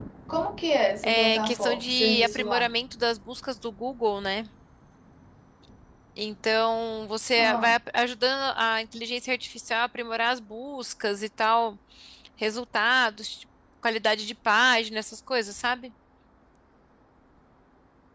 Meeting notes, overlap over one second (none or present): present